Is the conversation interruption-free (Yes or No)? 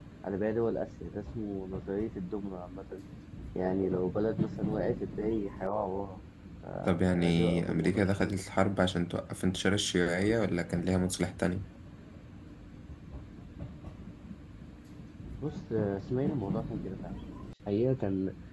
No